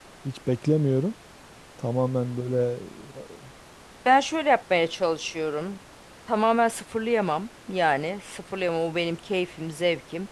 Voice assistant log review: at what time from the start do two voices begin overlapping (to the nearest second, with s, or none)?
none